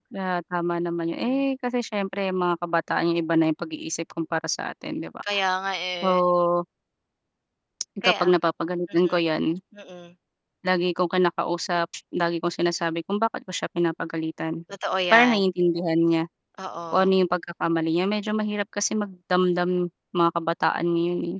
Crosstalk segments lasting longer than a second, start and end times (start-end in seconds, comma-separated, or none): none